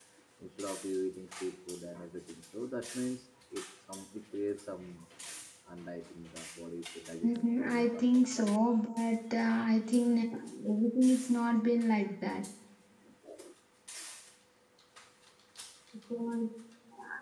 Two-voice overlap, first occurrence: 7 s

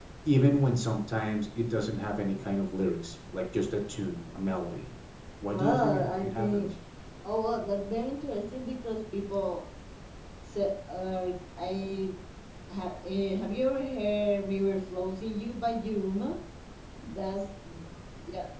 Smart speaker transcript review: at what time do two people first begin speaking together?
5 s

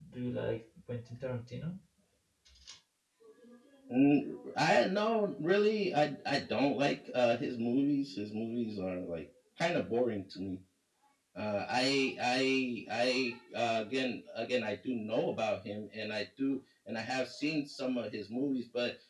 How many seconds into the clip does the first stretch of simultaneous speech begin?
none

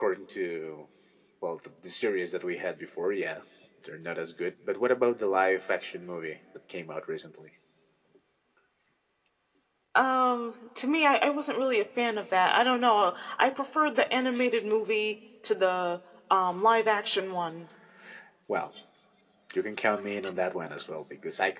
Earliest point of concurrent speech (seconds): none

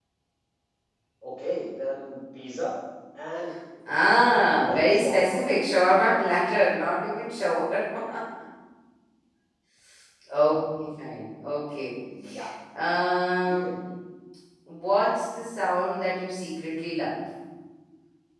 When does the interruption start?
5 s

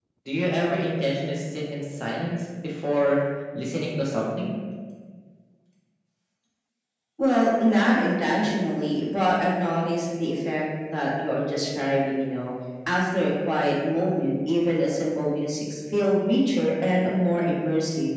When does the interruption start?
none

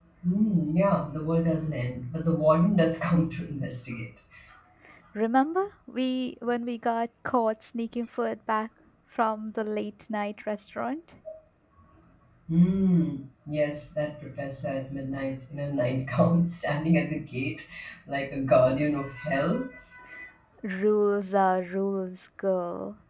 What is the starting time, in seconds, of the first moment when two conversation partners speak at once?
none

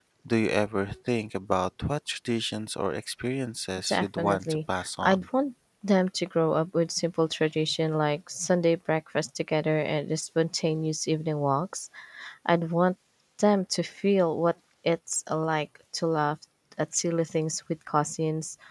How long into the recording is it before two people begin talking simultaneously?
4 s

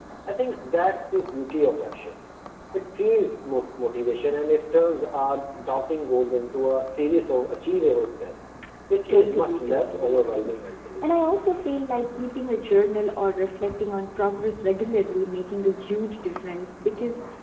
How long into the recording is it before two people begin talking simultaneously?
9 s

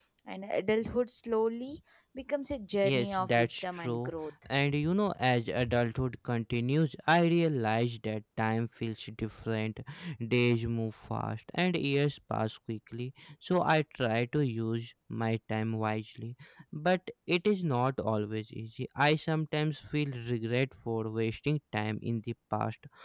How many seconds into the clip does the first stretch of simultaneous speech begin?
3 s

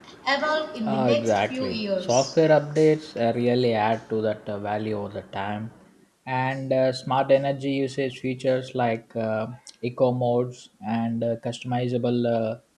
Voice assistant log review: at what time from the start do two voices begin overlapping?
1 s

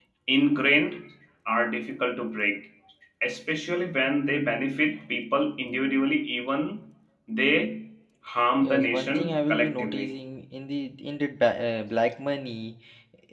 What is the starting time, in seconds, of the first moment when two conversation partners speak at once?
9 s

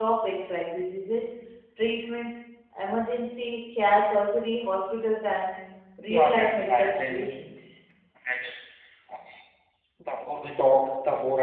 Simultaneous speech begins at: 6 s

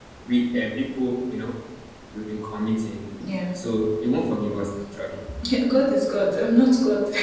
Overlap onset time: none

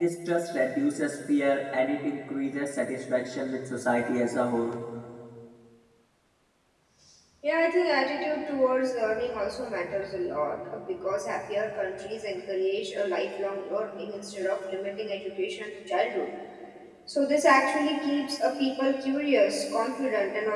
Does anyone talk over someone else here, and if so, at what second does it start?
none

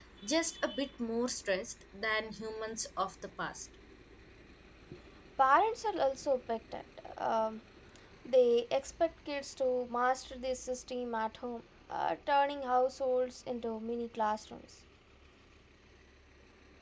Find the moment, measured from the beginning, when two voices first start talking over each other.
none

